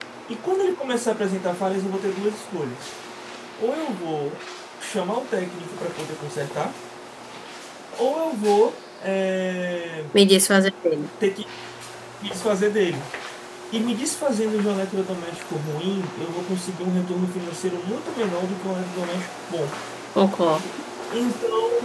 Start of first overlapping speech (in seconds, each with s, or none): none